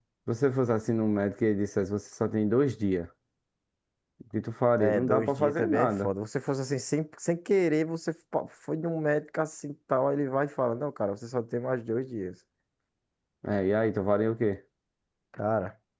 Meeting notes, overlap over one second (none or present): present